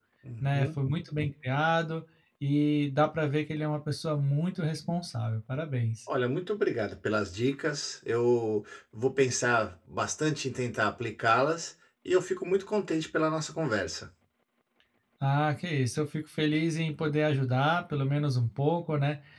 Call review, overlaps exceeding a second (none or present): none